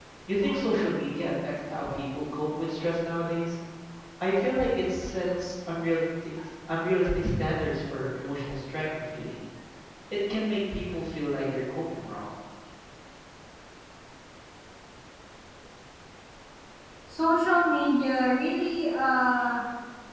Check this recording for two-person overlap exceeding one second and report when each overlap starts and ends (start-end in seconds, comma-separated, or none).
none